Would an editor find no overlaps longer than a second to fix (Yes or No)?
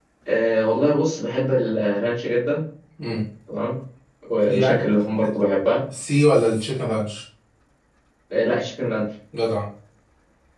Yes